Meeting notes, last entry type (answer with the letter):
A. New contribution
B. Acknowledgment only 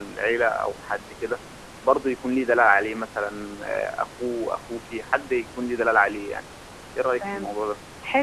A